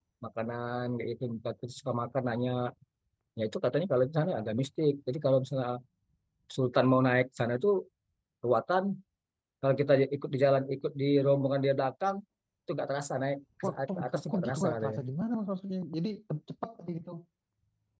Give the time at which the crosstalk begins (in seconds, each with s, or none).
13.6 s